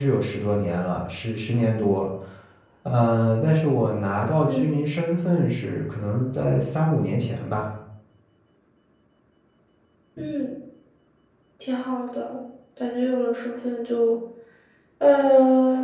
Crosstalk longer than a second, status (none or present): none